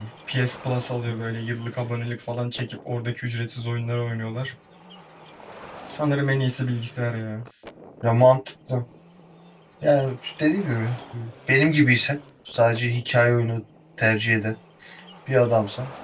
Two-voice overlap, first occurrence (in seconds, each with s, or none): none